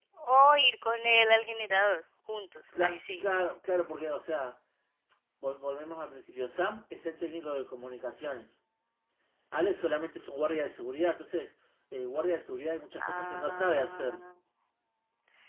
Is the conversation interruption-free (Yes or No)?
No